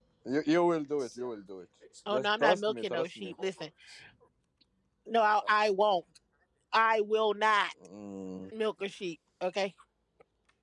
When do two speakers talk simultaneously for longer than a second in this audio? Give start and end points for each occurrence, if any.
2.1-3.3

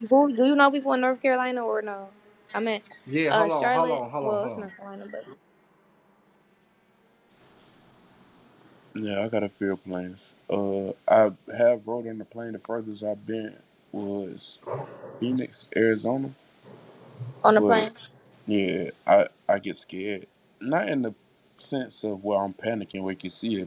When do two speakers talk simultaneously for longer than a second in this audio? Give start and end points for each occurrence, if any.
3.3-4.7

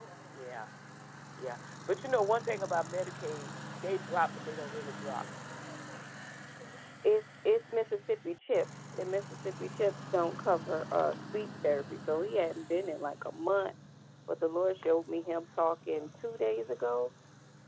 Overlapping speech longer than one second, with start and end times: none

